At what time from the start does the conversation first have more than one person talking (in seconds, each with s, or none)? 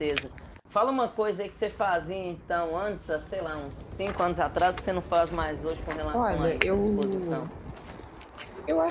6.1 s